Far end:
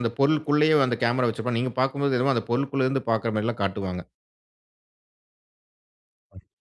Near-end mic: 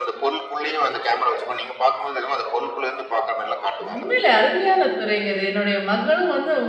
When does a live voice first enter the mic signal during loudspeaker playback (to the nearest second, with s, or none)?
4 s